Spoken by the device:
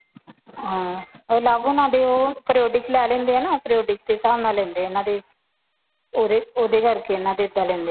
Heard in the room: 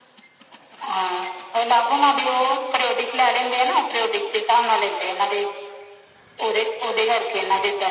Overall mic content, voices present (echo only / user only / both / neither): echo only